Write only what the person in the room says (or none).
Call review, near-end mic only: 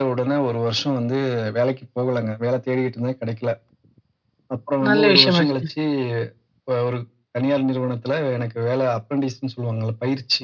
நல்ல விஷயமாச்சே.